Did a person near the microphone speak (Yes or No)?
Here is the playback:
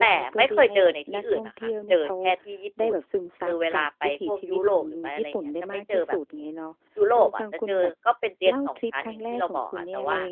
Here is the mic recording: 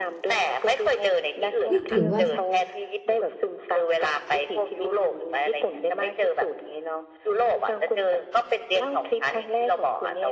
Yes